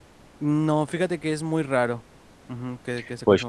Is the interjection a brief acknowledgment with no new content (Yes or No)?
No